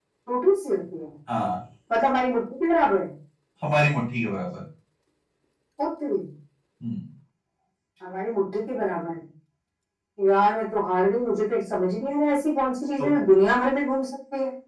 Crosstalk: none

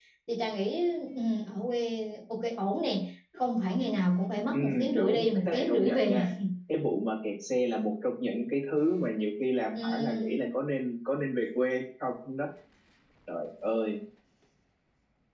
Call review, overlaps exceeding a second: present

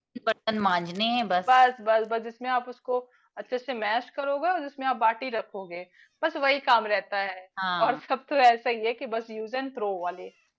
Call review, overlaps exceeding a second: none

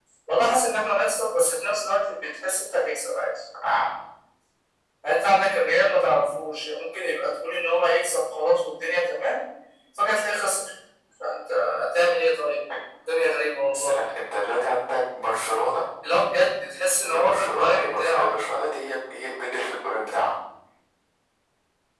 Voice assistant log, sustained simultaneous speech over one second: present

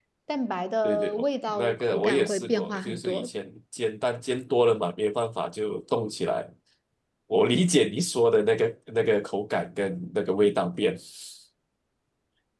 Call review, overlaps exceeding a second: present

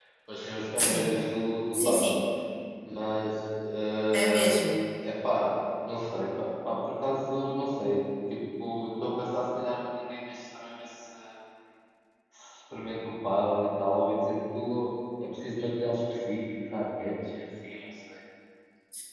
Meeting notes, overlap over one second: none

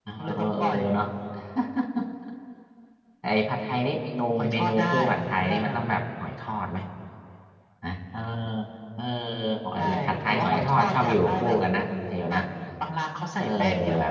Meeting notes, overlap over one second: present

